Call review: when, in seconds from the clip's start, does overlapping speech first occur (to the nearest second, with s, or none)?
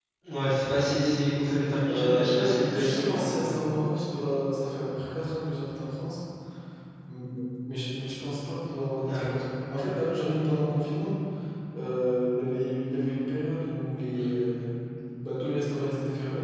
2 s